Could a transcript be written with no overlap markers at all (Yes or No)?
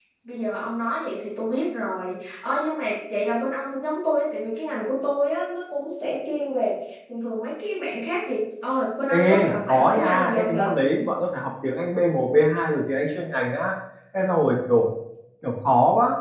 No